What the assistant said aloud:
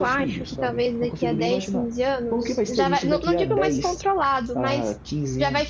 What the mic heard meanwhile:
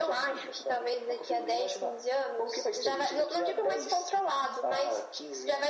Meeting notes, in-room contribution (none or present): none